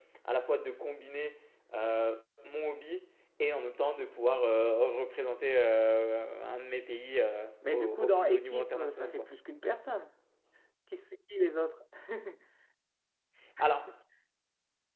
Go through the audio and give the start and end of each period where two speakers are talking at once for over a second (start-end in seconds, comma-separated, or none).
7.6-9.3